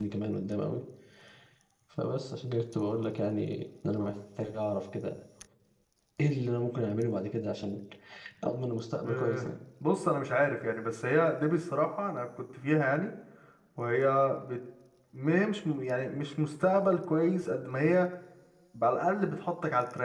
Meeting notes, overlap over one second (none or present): none